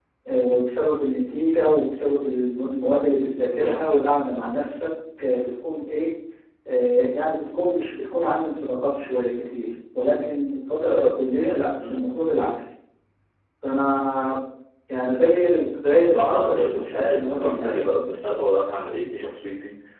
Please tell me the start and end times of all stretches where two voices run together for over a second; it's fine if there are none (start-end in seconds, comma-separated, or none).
16.1-17.9